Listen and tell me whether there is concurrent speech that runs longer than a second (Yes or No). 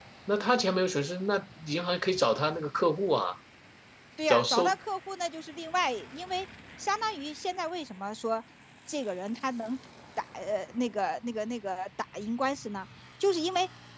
No